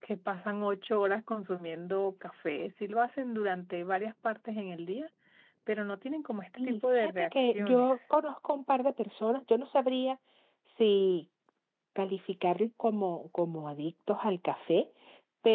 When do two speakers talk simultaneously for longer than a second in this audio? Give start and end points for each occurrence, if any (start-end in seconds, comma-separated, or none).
6.6-8.0